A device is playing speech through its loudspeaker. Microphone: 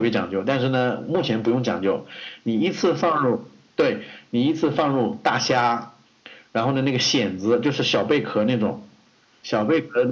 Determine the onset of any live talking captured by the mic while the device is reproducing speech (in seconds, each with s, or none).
none